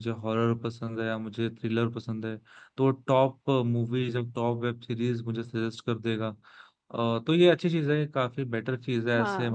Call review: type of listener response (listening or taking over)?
listening